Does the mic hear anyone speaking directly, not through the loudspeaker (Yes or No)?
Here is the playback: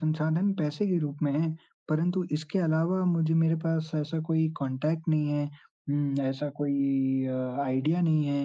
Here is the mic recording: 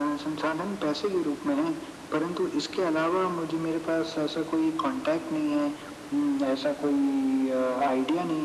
No